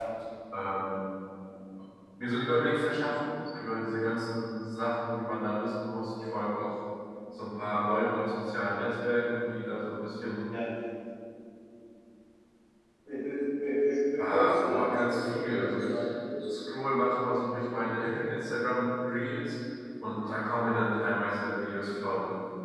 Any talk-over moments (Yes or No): Yes